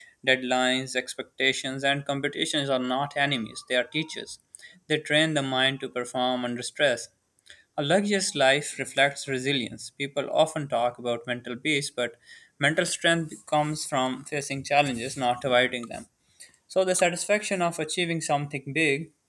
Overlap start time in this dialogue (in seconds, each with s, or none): none